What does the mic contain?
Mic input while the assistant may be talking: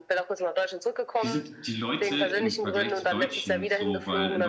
both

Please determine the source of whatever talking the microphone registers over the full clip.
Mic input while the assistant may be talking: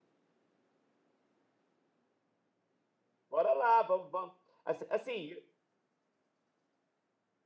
user only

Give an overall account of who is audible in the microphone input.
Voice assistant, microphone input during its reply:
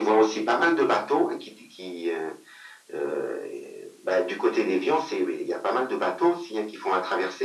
echo only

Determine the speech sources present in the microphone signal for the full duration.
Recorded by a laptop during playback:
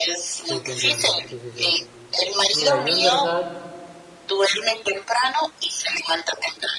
both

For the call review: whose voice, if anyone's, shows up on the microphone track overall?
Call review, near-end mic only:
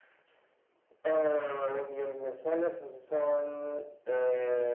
echo only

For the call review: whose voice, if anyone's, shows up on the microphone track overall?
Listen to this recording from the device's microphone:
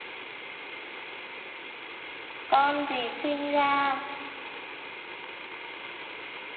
user only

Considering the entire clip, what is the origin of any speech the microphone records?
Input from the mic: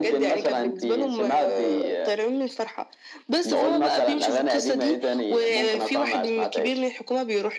echo only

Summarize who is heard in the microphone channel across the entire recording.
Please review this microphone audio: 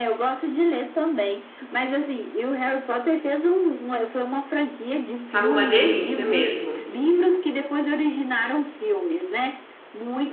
both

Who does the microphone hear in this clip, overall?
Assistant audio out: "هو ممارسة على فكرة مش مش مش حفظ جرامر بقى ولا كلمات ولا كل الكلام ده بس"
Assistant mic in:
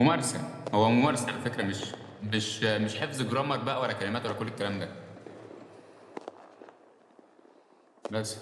echo only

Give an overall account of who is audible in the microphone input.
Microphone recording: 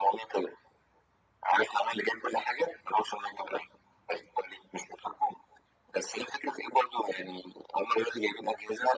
echo only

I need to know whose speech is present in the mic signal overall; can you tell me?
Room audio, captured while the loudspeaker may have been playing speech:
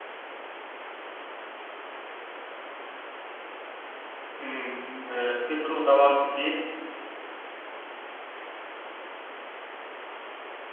user only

